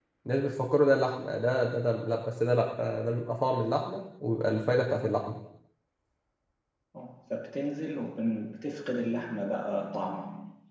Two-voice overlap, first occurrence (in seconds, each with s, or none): none